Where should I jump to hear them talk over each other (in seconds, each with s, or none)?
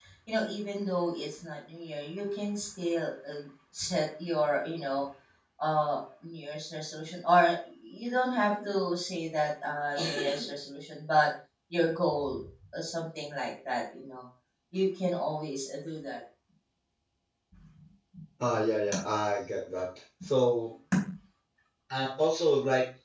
none